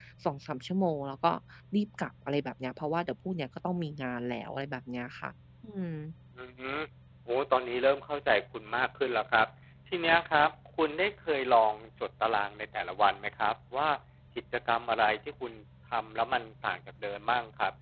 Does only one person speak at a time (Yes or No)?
Yes